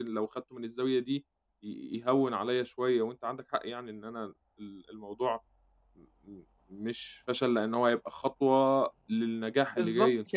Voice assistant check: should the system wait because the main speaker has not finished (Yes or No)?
No